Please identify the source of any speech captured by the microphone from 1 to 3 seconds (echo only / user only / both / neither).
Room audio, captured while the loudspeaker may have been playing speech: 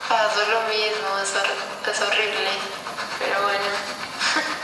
echo only